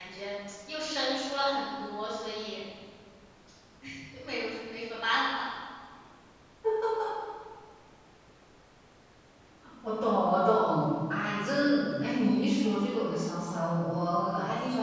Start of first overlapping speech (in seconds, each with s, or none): none